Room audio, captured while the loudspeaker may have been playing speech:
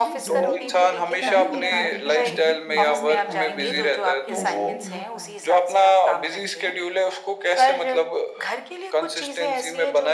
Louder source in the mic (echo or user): echo